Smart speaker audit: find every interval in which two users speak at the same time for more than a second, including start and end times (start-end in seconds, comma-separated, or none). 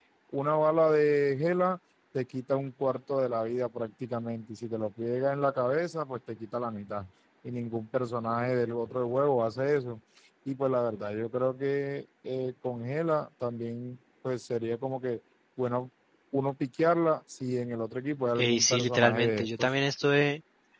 18.4-19.7